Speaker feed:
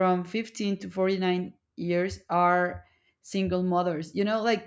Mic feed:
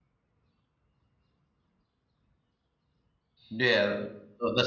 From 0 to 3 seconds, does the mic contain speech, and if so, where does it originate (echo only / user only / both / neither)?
neither